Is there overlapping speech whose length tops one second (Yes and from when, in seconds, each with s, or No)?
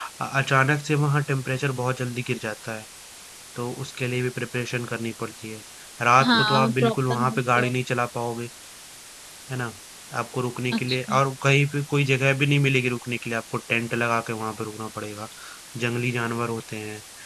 Yes, from 6.2 s